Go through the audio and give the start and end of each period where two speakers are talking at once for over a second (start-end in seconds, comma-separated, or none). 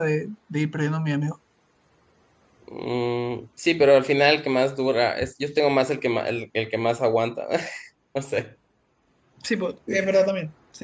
none